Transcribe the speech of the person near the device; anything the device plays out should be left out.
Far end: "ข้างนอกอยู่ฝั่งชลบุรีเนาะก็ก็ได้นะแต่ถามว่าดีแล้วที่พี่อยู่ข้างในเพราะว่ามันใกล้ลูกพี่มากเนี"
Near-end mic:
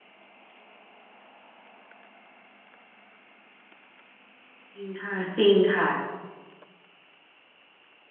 จริงค่ะจริงค่ะ

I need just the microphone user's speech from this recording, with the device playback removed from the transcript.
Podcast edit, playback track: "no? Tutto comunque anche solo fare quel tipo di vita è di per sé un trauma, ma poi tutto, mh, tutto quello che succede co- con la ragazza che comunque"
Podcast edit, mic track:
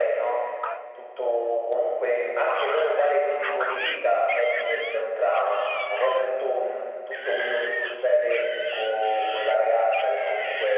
none

